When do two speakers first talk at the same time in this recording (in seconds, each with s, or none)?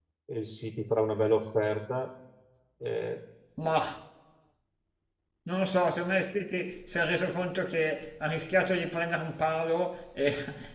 none